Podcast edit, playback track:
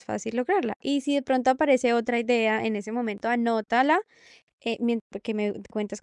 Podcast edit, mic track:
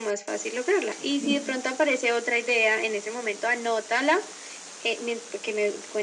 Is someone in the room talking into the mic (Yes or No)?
Yes